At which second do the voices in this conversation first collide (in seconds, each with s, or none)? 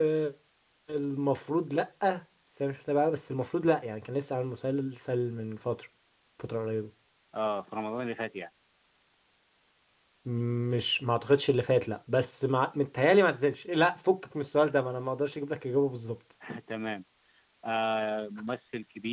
none